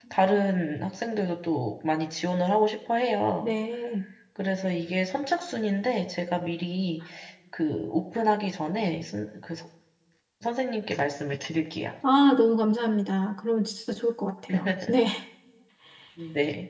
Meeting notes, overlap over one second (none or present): none